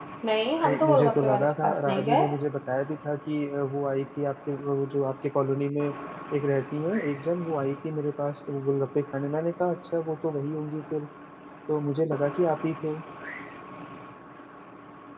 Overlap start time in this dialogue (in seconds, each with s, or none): 0.6 s